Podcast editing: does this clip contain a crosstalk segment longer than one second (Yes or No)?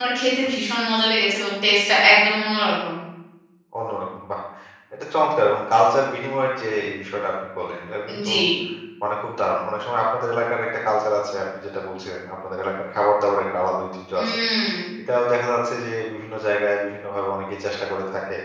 No